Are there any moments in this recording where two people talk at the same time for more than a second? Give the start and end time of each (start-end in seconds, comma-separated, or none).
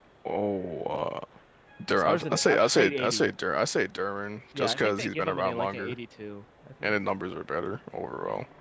1.9-3.3, 4.6-6.0